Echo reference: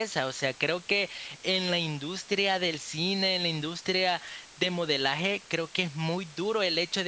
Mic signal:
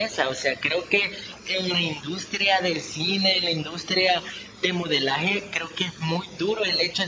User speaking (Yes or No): No